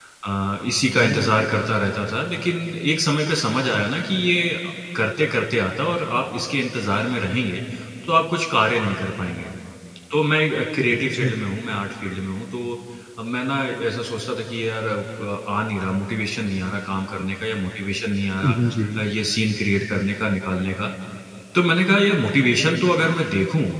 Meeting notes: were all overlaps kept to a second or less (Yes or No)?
Yes